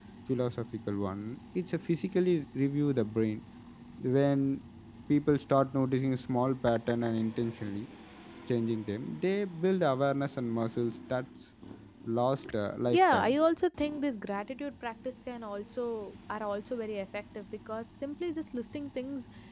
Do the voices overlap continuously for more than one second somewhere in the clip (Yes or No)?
No